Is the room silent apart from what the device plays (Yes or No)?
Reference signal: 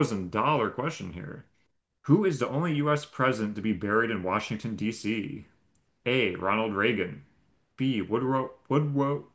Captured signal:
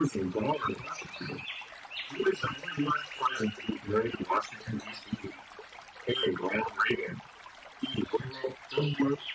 Yes